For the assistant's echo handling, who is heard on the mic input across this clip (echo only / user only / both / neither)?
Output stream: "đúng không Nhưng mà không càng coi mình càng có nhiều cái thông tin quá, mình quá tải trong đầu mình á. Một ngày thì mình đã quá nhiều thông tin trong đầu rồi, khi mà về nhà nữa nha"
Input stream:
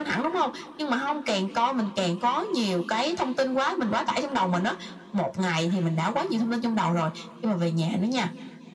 echo only